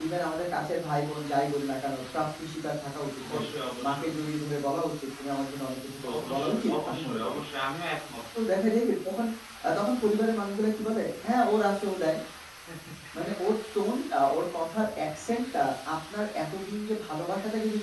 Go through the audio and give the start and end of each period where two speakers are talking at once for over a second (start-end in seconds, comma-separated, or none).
6.1-7.4